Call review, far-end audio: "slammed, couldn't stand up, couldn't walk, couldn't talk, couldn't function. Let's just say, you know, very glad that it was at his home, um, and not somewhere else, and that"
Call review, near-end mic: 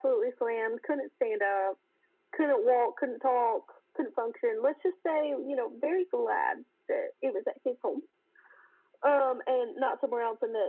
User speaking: No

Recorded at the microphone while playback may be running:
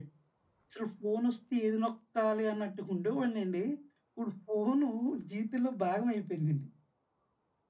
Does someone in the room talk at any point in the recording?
No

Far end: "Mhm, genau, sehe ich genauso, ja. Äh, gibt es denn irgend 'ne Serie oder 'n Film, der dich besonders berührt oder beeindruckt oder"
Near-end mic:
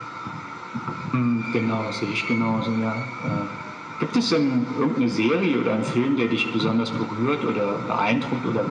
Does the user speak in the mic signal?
No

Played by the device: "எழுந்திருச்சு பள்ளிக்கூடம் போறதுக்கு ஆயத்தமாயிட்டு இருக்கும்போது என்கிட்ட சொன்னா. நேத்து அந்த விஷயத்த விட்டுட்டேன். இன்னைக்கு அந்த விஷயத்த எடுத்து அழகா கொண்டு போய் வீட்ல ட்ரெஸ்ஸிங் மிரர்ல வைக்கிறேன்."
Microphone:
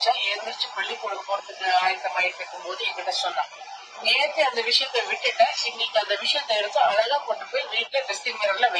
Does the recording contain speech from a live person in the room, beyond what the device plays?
No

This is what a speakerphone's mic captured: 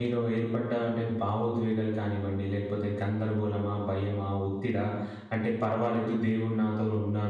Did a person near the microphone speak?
Yes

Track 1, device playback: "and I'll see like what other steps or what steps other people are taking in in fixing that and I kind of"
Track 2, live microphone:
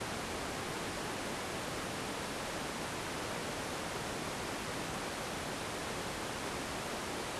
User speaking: No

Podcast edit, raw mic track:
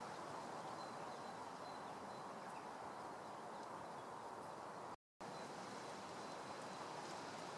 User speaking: No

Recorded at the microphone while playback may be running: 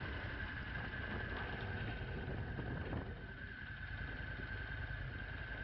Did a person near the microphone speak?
No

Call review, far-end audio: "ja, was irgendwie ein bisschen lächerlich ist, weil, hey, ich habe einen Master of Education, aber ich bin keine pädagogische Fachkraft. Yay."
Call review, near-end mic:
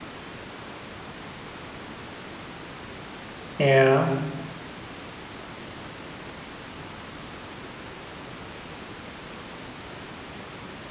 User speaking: Yes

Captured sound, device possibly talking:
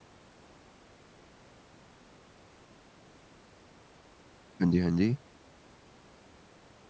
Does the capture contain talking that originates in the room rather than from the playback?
Yes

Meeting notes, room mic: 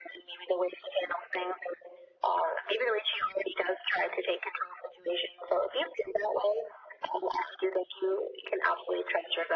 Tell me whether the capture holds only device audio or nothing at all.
Yes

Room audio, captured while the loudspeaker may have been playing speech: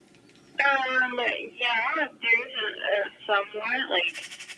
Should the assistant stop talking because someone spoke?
No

